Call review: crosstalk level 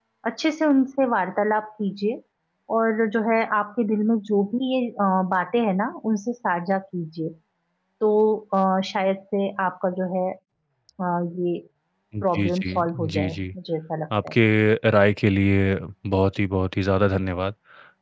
present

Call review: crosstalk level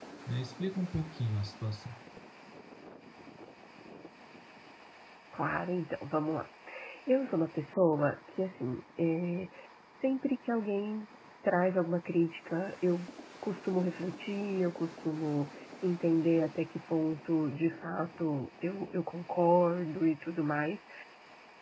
none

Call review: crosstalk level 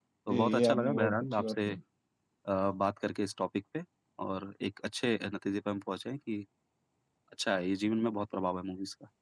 present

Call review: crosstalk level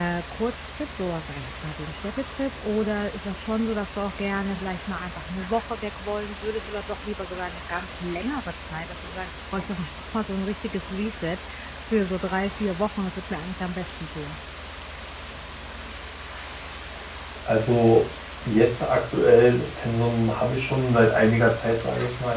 none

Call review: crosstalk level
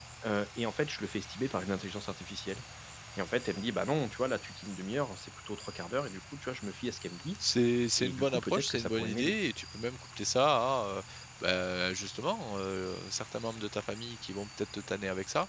present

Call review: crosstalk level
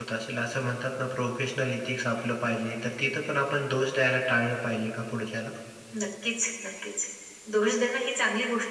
none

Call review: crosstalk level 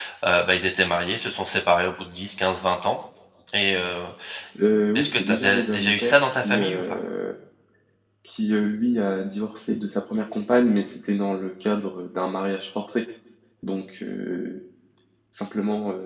present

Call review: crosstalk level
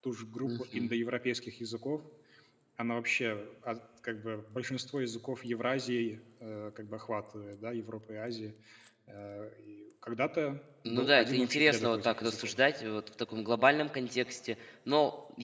present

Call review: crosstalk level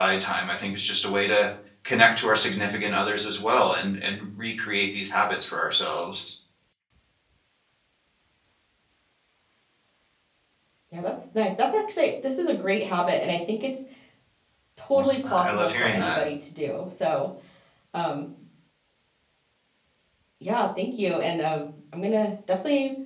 present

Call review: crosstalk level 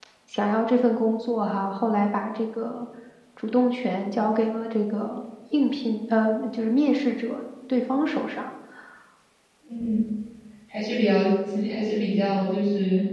none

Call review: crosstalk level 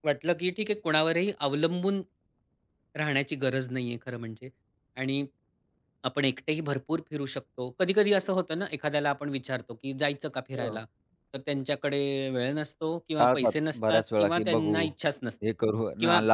present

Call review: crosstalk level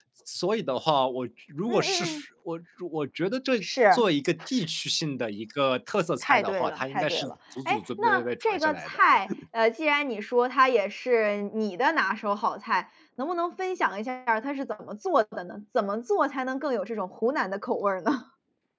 present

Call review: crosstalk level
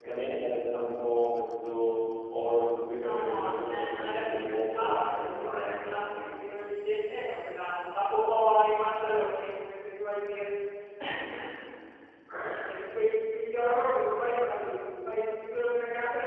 present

